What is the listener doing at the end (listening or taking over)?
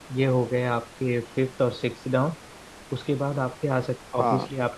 listening